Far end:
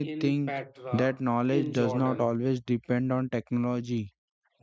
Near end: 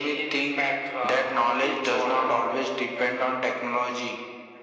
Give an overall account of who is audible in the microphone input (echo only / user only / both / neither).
echo only